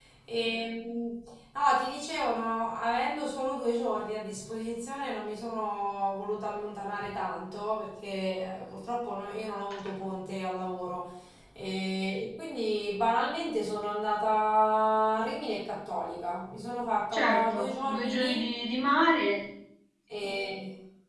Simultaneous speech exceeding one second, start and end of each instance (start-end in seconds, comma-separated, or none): 17.1-18.4